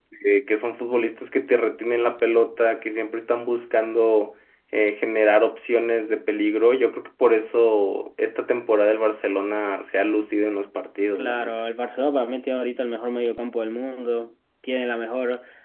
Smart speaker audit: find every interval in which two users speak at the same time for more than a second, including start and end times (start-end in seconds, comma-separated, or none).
none